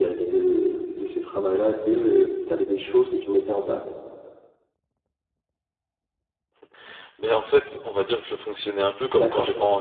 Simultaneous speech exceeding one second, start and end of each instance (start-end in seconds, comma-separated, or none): none